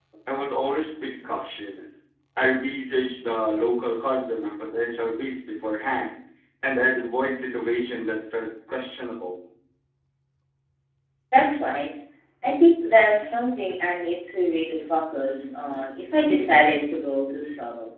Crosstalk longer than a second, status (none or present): none